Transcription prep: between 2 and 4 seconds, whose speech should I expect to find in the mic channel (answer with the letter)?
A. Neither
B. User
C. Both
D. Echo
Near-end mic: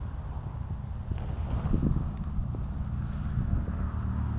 A